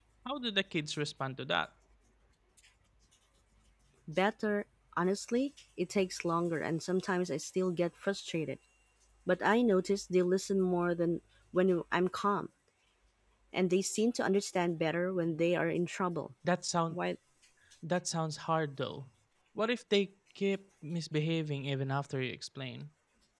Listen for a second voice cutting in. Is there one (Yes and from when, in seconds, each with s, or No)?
No